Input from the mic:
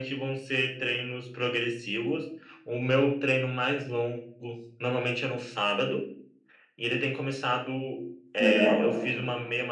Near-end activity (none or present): present